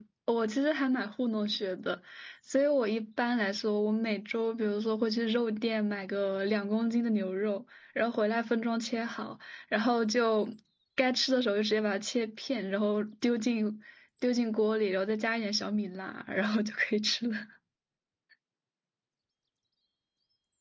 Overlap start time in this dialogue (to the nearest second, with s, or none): none